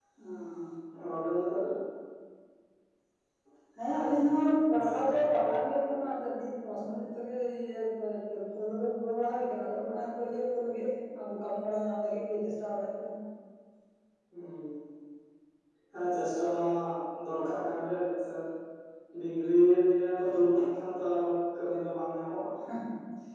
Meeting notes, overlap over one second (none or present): none